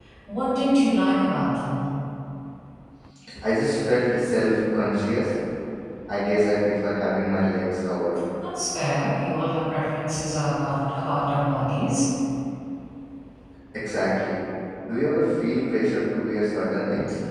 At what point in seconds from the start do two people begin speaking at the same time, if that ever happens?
none

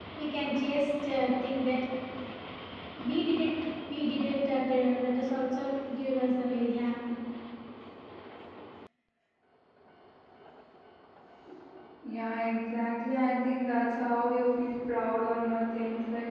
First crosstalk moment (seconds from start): none

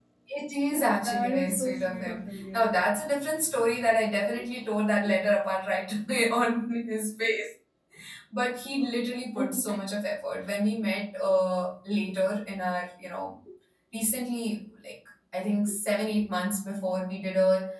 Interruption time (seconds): 1 s

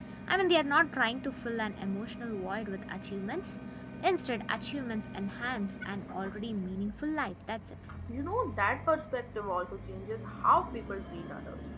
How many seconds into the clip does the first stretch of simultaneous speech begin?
none

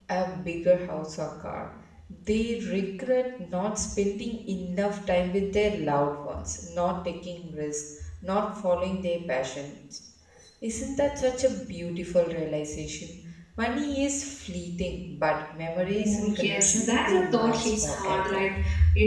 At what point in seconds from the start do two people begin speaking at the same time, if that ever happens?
16 s

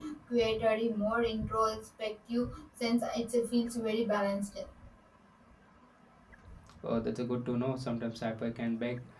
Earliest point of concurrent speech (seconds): none

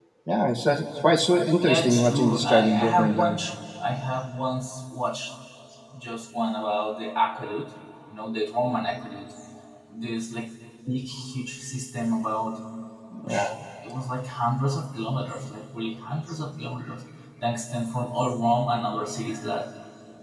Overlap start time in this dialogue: 2 s

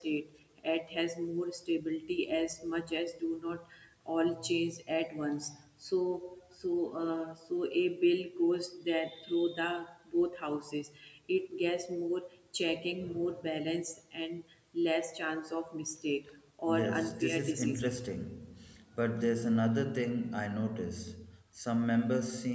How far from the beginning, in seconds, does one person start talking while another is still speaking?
17 s

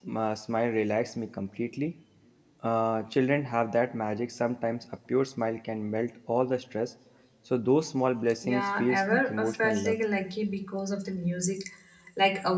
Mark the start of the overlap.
8 s

